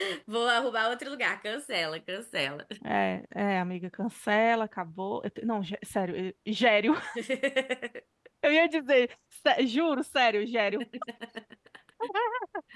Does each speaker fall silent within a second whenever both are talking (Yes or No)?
Yes